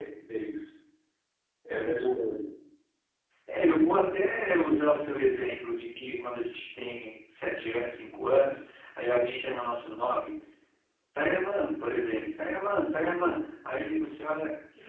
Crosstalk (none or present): none